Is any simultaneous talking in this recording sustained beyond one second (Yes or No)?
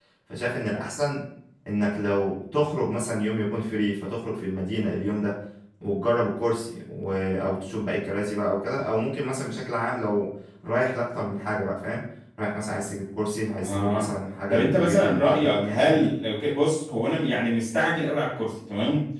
Yes